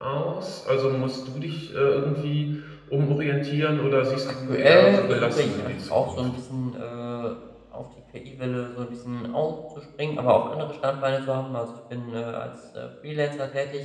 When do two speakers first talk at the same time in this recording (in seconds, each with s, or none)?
4.3 s